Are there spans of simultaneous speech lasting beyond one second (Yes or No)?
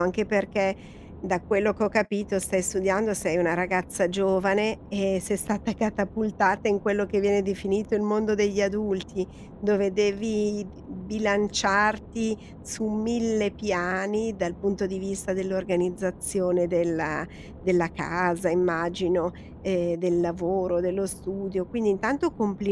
No